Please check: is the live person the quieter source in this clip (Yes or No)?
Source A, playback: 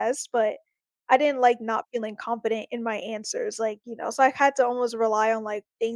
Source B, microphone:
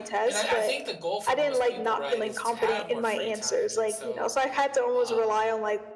Yes